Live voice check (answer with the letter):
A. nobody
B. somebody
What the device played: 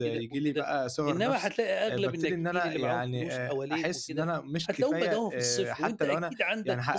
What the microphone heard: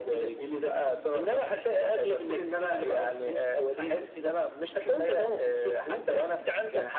A